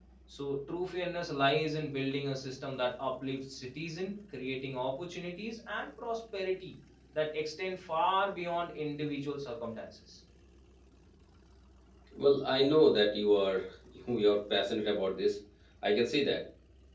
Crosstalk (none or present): none